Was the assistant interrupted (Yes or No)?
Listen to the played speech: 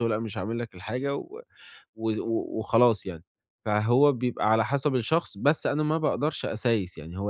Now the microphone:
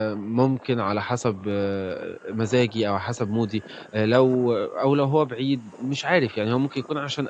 Yes